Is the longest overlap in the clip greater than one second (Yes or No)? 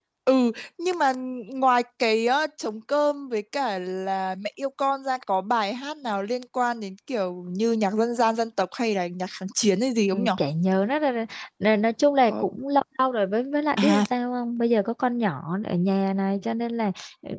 No